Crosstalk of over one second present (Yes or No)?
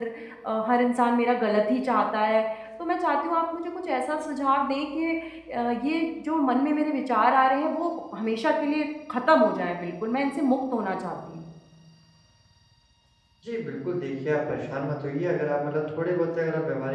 No